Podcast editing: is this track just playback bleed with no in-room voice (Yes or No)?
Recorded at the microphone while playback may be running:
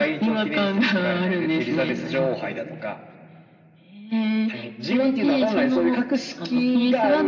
Yes